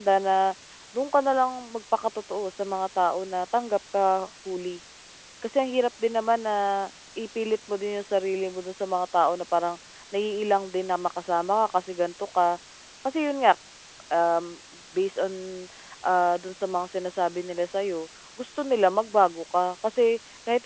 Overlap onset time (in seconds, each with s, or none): none